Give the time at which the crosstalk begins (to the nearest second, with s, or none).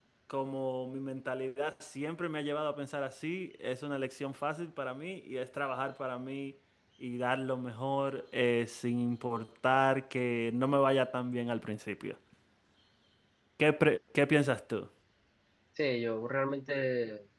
none